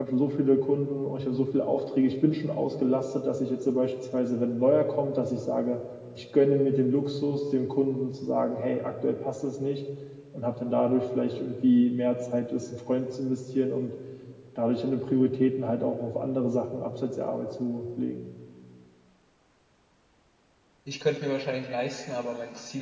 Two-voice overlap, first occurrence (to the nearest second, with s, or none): none